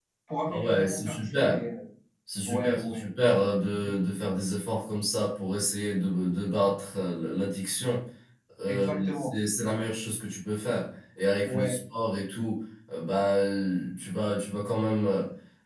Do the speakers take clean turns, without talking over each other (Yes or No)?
No